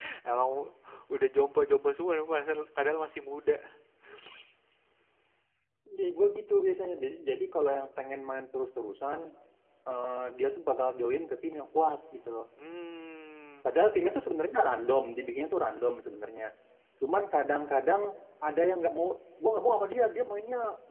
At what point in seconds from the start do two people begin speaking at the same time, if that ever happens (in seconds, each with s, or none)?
none